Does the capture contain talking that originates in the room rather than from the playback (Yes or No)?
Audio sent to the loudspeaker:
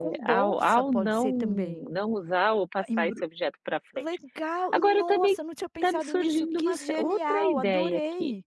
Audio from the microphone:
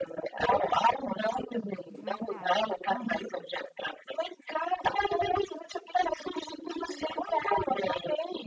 Yes